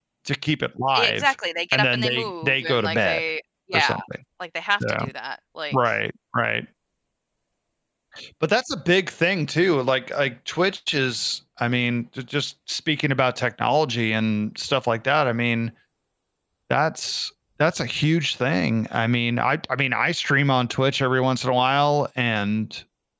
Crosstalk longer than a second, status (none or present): present